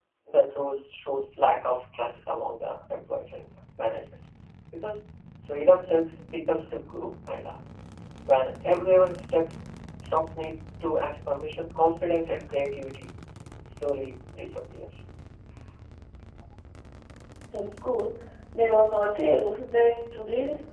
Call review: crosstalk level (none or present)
none